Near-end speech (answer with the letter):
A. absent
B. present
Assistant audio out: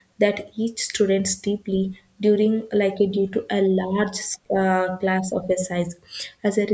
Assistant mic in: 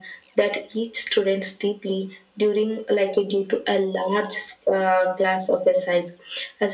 A